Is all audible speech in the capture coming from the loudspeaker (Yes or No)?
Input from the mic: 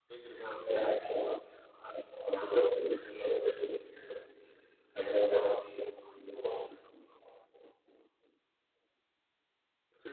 Yes